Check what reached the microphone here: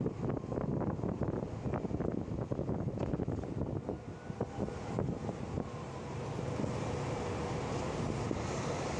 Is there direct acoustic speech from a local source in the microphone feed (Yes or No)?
No